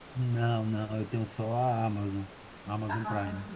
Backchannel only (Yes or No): No